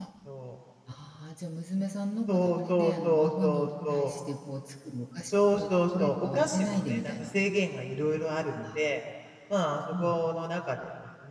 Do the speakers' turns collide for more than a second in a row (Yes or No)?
Yes